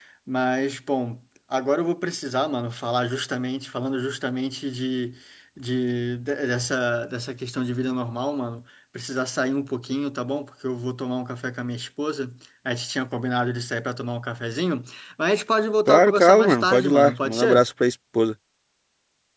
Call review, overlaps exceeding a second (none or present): present